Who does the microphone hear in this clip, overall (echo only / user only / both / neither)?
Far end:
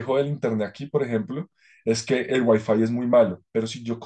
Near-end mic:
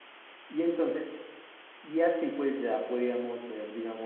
user only